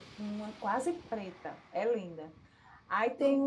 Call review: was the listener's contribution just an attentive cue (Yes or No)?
Yes